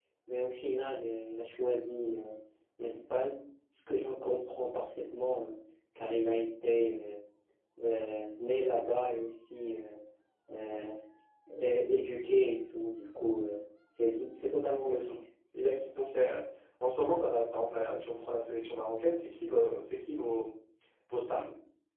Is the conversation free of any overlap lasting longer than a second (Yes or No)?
Yes